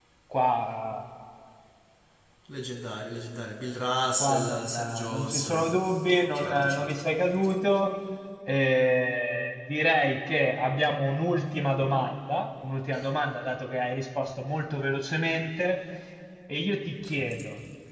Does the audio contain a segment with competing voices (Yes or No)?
Yes